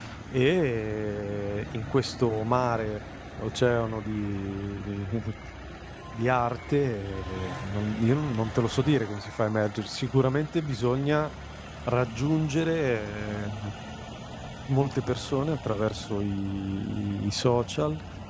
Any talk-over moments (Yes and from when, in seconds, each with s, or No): No